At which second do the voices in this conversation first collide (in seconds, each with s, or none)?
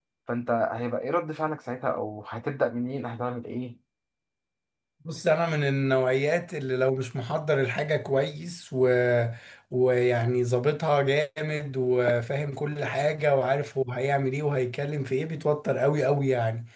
none